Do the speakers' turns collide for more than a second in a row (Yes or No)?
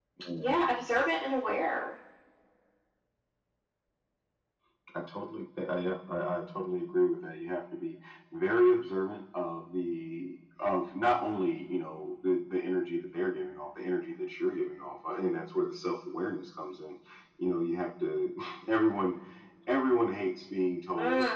No